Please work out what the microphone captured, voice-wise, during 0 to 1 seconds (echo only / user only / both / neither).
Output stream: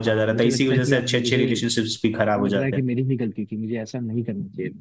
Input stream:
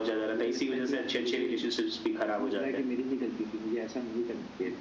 echo only